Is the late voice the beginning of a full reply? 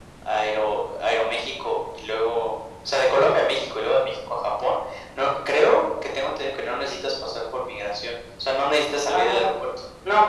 Yes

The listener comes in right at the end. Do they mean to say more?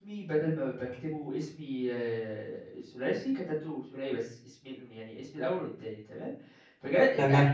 No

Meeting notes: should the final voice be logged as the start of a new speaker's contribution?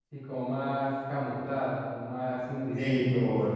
Yes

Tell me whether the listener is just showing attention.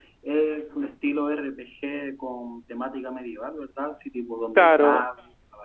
No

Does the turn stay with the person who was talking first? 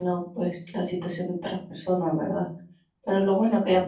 Yes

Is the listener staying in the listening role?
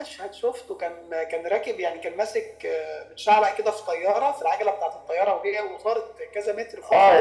No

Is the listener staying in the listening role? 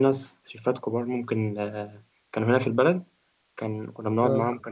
Yes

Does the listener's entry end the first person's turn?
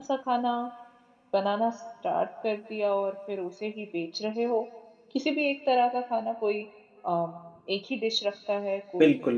Yes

